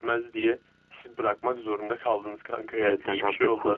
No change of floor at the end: No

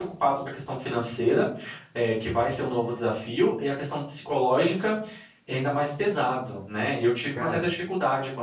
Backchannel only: Yes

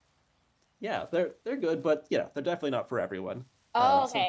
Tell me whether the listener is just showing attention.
No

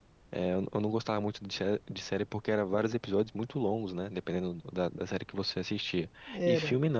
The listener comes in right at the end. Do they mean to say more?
No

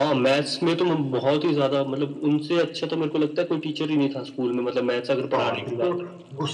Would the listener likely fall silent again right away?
No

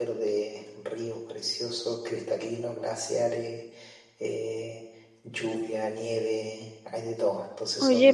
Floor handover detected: Yes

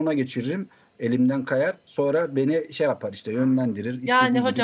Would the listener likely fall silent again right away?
No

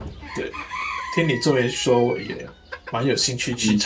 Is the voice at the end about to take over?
Yes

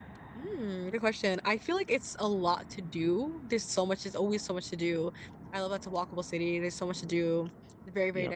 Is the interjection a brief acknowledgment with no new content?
Yes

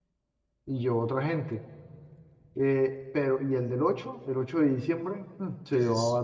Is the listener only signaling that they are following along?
Yes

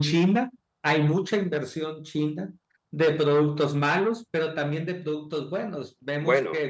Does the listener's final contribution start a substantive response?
No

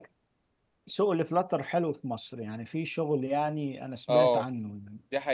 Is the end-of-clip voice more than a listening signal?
Yes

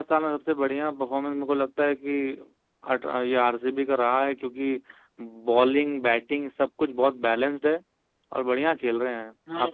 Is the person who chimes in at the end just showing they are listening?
No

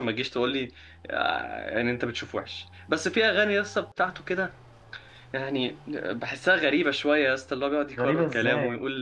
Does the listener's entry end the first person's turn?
Yes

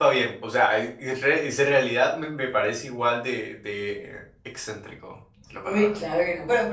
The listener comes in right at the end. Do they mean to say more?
Yes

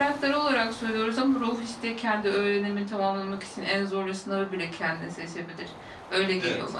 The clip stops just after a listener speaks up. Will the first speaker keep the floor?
No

